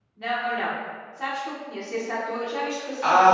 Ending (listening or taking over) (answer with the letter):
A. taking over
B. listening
A